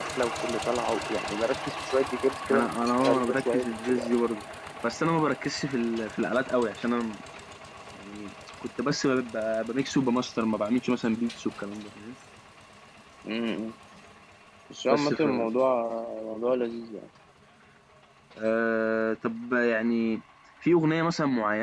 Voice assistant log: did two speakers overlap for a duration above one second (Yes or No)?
Yes